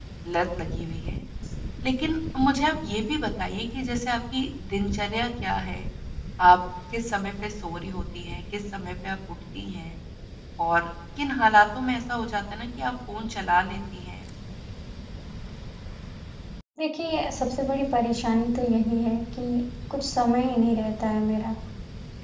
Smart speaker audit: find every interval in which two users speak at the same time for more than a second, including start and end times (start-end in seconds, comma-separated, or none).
none